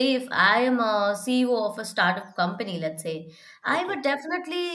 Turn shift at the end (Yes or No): No